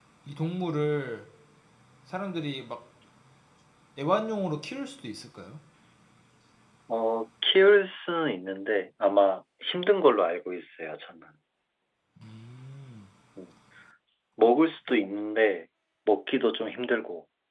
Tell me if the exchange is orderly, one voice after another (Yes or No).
Yes